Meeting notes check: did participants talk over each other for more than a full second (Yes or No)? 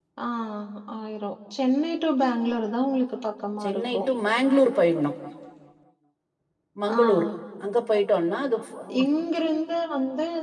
No